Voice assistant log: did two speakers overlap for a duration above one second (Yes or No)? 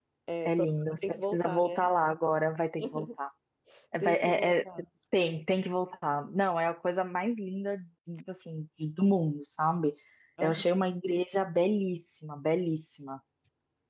Yes